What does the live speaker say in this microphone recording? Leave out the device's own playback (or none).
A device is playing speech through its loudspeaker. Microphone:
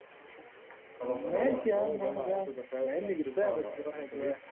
خلاص انا غلبكم وارد بصراحة